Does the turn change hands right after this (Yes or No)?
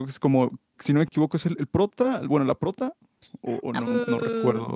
Yes